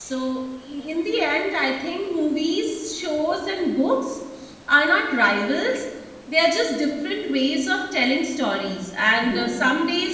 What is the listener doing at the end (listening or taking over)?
listening